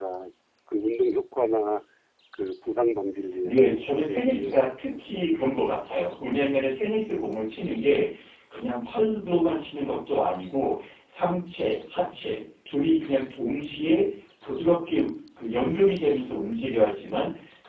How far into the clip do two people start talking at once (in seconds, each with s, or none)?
3.4 s